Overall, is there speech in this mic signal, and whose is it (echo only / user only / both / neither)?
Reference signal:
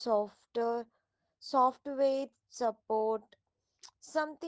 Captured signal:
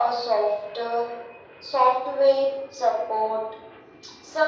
echo only